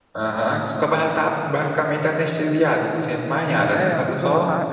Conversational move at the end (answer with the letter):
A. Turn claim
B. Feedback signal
A